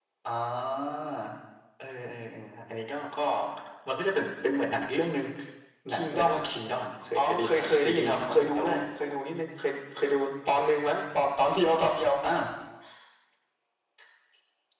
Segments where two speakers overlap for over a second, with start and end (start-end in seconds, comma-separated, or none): 7.2-8.7